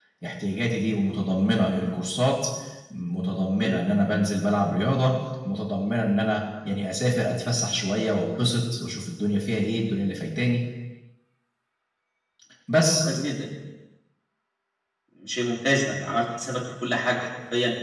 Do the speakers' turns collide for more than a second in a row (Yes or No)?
No